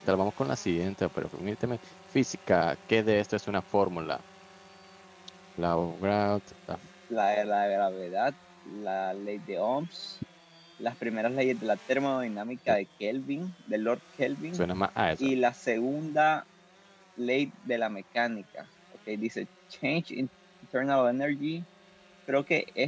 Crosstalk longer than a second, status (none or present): none